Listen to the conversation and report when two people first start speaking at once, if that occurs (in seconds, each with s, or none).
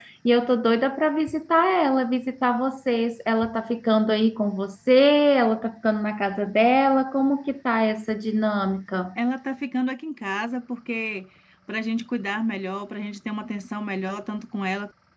none